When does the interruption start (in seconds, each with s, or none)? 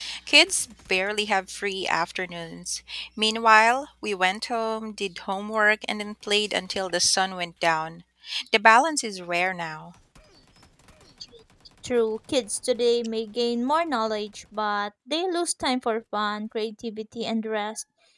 none